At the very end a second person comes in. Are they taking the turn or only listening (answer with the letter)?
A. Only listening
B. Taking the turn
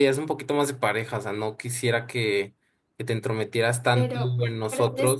B